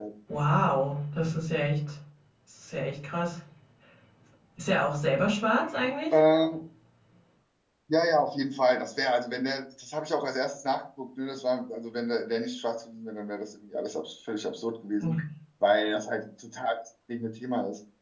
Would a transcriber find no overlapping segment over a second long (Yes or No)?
Yes